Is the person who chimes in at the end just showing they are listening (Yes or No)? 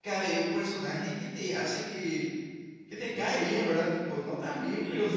Yes